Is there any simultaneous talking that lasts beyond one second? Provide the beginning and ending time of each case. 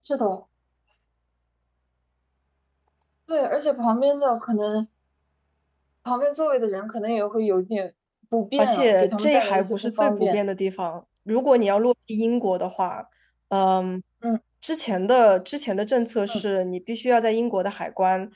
8.6-10.4

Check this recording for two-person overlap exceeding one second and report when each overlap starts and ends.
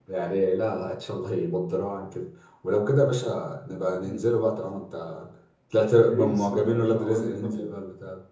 6.0-7.7

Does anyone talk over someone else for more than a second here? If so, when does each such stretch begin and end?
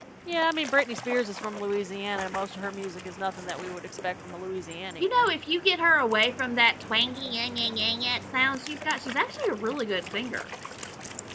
none

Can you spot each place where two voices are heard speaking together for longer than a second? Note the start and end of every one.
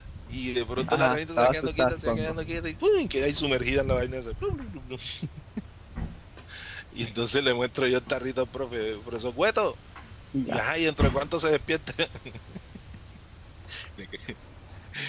0.9-2.3

